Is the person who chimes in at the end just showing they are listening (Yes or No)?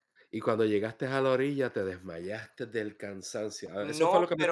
No